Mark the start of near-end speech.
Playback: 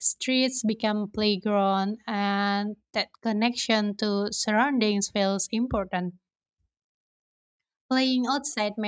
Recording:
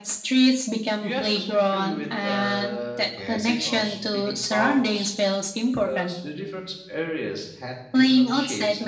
1 s

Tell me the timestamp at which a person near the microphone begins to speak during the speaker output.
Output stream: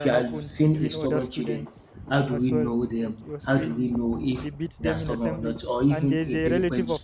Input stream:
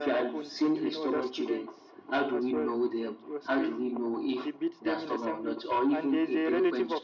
none

